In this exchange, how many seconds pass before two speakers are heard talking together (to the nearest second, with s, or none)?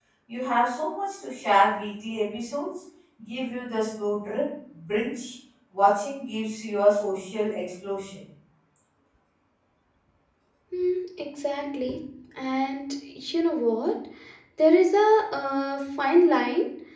none